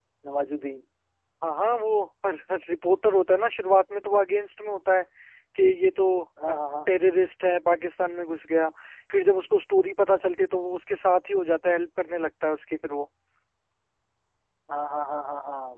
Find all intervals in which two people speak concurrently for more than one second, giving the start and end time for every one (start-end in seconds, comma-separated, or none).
none